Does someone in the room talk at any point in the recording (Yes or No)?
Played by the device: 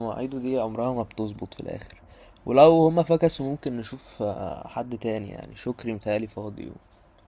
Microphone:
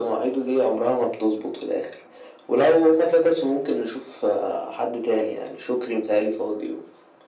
No